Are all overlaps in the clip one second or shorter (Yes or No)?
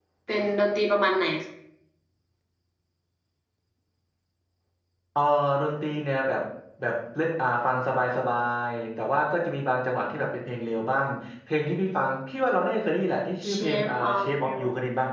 No